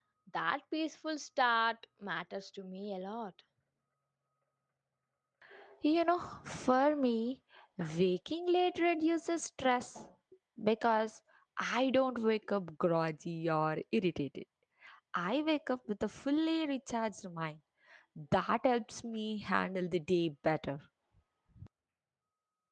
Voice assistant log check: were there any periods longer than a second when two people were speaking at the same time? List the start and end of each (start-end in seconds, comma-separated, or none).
none